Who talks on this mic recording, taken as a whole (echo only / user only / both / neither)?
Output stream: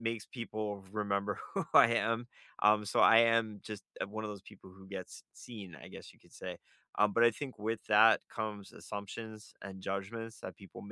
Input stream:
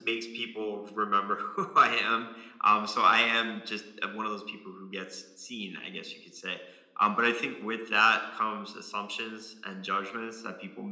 echo only